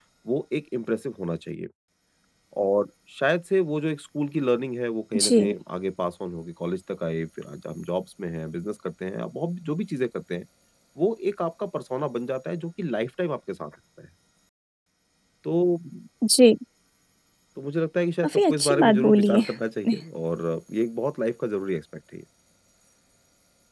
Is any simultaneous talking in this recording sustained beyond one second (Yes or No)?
Yes